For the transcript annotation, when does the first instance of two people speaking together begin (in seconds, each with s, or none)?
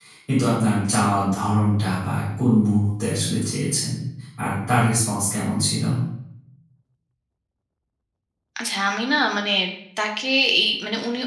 none